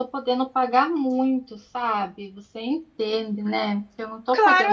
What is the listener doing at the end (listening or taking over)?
taking over